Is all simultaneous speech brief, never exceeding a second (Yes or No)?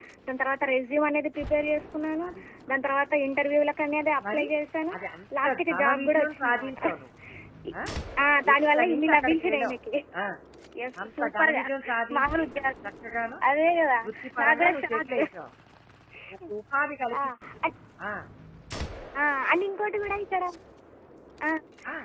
No